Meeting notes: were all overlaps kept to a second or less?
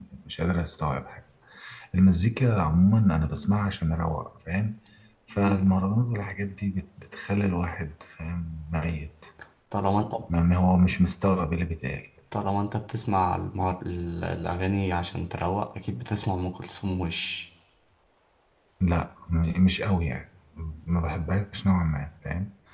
Yes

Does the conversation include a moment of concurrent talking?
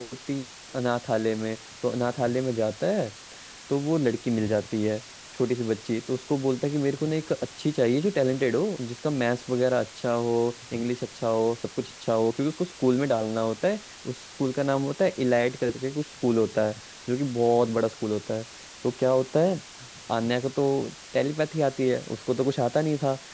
No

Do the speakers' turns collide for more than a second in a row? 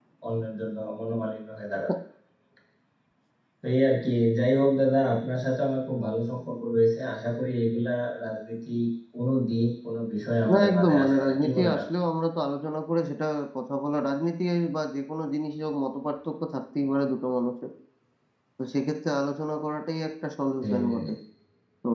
Yes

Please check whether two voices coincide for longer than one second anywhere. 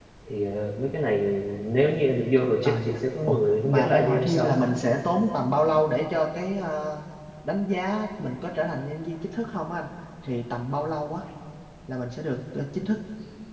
Yes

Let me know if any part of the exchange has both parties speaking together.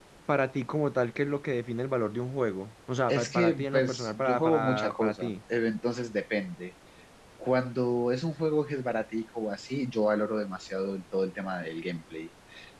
Yes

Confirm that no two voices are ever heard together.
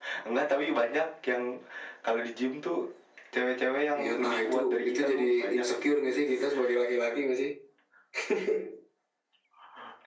No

